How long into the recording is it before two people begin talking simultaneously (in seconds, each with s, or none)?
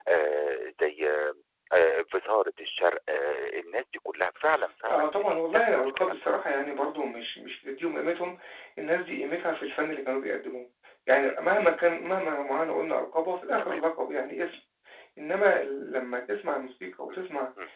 4.9 s